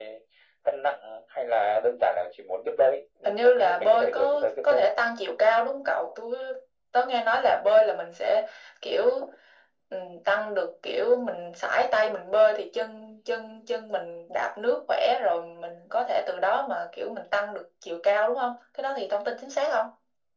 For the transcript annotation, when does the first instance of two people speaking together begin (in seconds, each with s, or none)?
3.2 s